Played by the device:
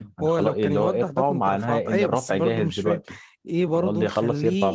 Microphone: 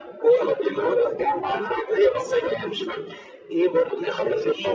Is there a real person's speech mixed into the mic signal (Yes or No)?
No